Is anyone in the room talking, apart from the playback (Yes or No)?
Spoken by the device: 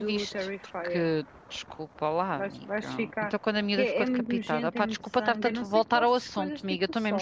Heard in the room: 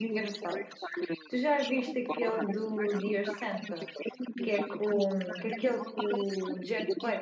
Yes